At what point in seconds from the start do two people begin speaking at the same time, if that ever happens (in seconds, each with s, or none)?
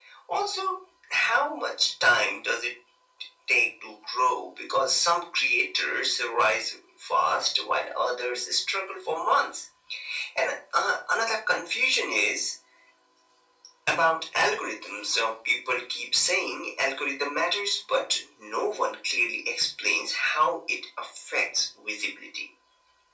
none